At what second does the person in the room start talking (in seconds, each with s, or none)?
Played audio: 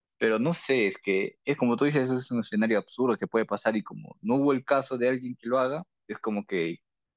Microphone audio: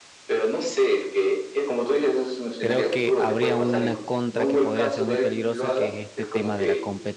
2.6 s